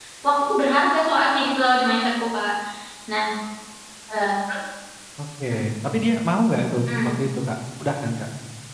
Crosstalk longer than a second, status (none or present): none